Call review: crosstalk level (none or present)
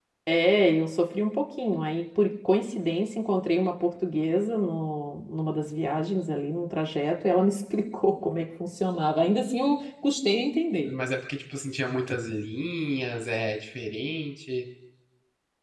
none